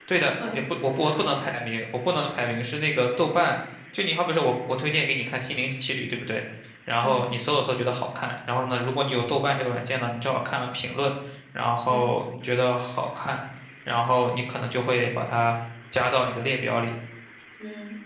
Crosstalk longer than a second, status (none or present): none